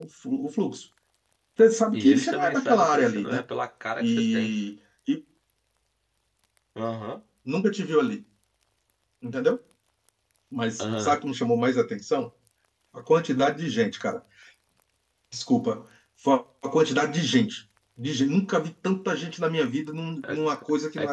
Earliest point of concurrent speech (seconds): 2 s

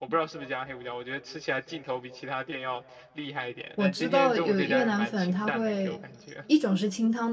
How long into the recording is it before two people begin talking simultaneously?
4 s

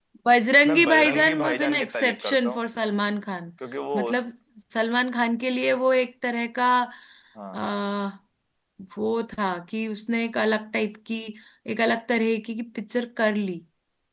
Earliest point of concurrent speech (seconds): 1 s

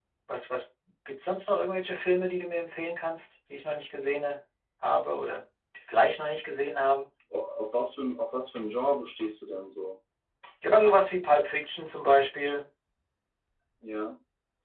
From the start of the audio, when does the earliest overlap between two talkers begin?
none

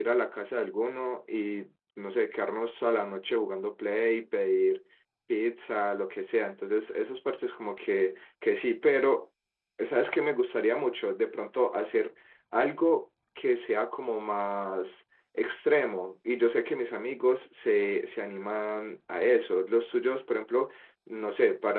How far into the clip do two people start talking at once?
none

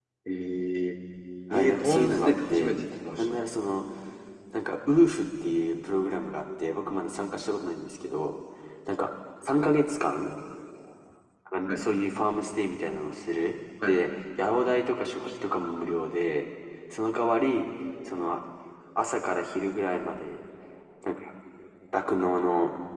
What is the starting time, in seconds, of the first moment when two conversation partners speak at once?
2 s

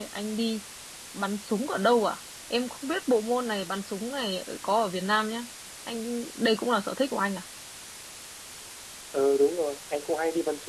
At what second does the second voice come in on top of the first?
none

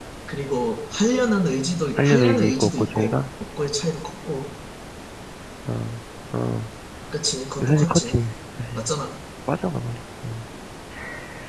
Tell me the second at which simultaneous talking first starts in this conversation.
2 s

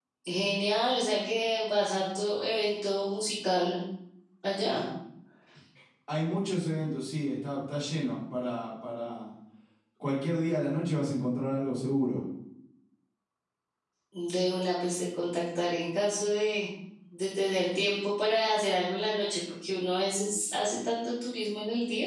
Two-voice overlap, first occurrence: none

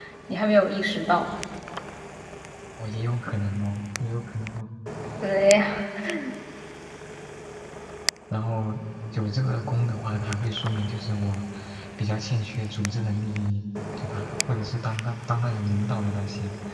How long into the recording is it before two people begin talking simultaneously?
none

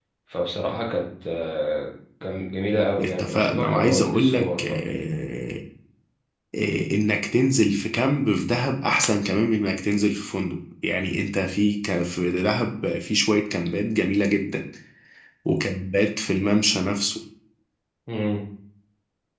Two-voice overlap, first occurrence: 3 s

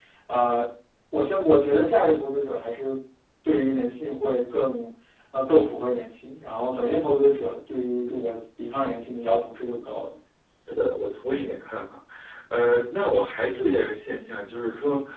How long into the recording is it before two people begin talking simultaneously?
none

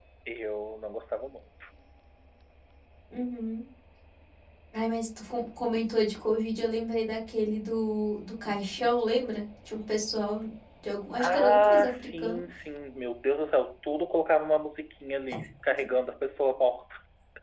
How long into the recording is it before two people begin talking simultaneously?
11 s

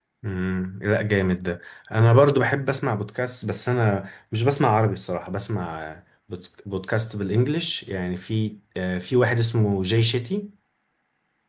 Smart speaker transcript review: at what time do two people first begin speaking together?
none

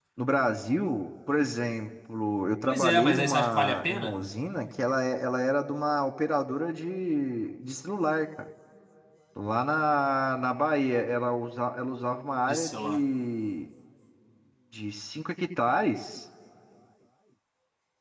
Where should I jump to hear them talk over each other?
3 s

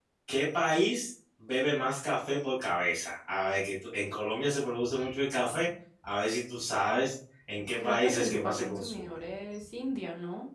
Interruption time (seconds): 8 s

